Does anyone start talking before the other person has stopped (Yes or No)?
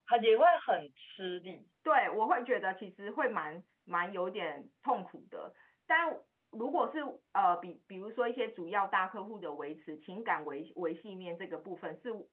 No